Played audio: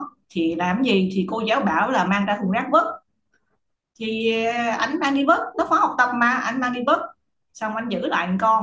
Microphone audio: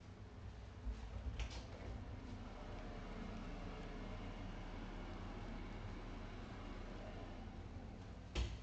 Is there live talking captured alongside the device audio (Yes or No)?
No